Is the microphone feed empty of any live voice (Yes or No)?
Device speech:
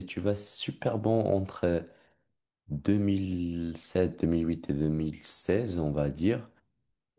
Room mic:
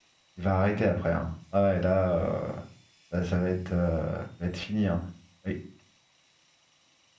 No